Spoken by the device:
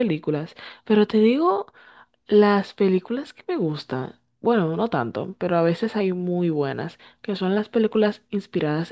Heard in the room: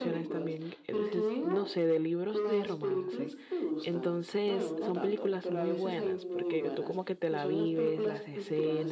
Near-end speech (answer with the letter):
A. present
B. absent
A